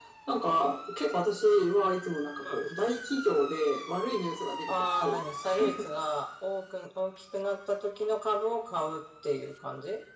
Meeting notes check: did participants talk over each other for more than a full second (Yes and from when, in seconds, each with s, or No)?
No